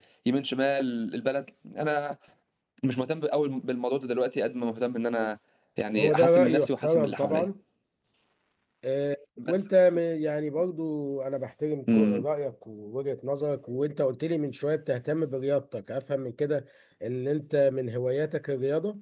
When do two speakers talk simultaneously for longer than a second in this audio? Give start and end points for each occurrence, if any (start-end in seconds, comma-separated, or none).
6.0-7.5